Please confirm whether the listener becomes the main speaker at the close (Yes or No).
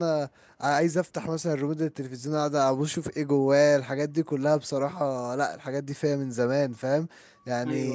No